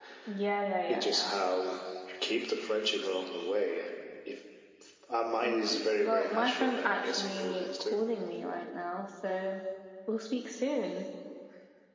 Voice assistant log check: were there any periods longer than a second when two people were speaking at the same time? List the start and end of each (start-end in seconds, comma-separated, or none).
5.4-8.0